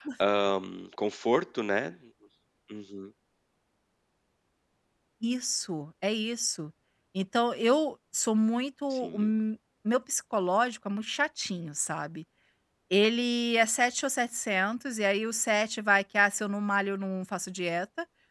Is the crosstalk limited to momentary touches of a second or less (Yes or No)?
Yes